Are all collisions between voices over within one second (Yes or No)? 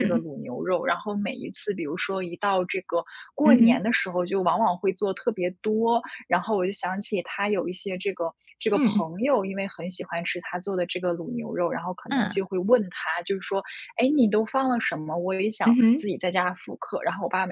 Yes